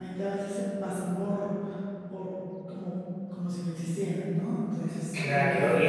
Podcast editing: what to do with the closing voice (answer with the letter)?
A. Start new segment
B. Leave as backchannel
A